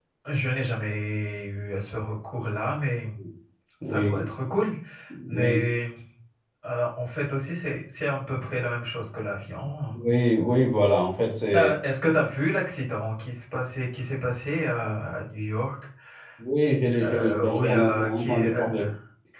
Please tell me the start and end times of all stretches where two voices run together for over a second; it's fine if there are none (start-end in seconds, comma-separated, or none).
17.0-18.7